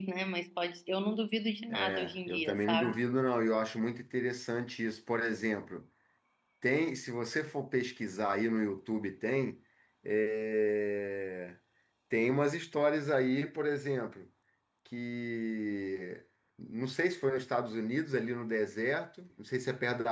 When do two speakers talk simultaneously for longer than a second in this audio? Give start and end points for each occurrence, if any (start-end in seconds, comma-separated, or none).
1.7-3.0